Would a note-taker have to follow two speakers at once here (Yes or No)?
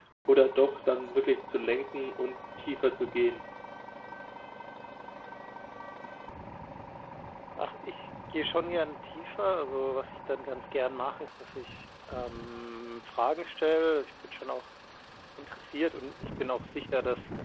No